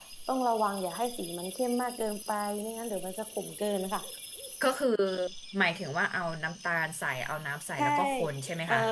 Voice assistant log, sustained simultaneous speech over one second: none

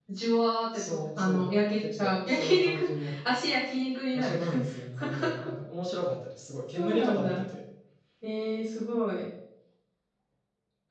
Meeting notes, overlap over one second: present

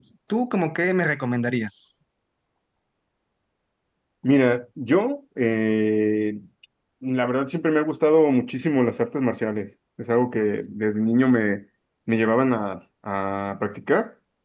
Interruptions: none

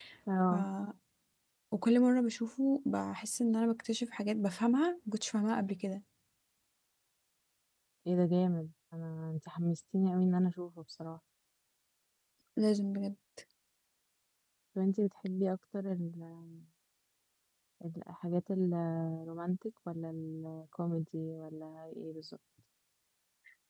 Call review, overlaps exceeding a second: none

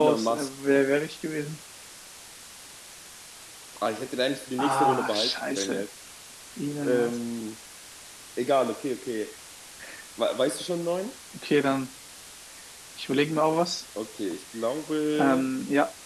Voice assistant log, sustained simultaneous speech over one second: present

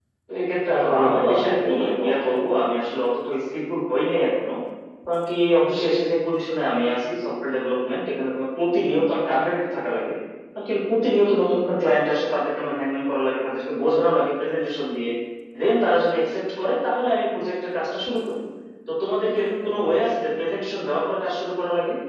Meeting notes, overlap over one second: present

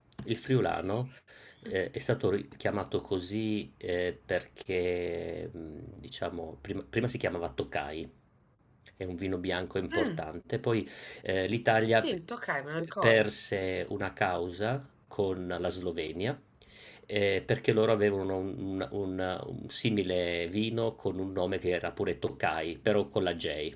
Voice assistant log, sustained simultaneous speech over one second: none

